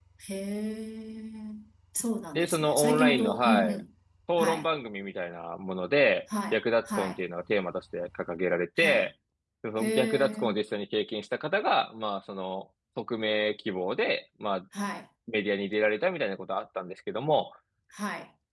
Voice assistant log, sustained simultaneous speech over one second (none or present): present